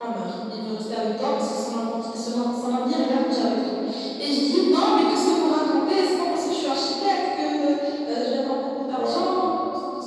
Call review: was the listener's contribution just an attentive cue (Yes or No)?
Yes